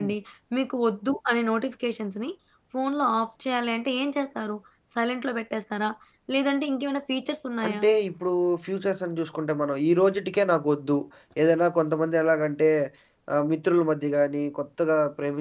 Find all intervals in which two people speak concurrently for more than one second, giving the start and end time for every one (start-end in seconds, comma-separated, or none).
none